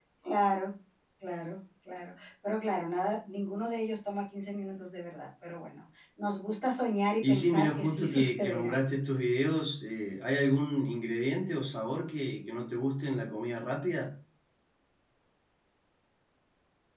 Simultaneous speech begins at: 7.2 s

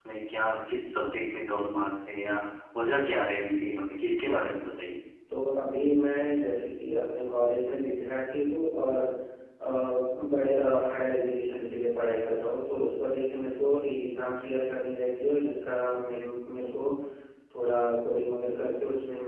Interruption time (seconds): none

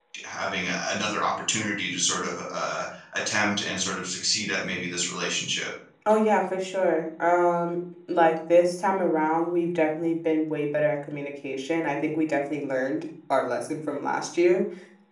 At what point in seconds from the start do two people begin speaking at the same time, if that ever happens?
none

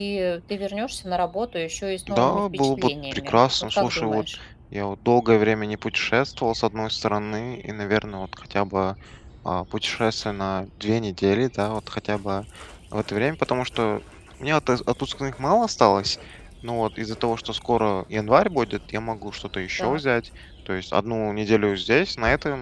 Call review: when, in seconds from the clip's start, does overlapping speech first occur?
2.1 s

